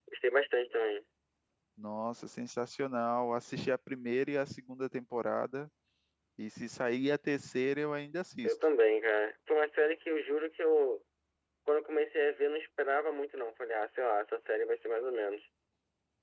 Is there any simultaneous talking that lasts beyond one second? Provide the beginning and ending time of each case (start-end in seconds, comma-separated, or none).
none